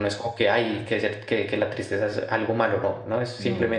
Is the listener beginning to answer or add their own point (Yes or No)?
No